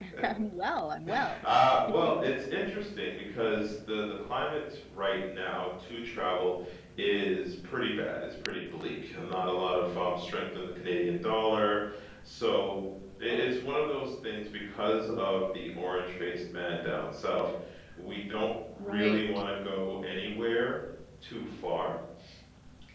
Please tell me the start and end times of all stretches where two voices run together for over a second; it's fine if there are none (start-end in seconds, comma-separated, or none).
none